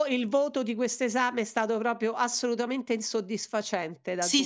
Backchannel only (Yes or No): No